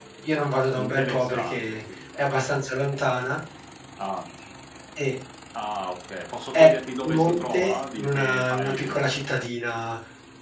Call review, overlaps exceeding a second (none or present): present